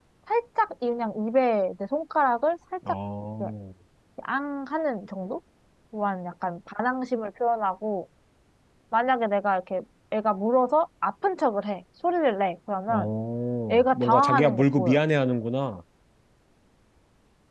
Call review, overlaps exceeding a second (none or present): present